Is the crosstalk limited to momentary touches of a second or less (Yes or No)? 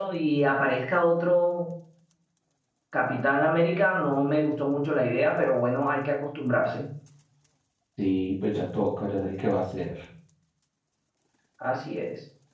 Yes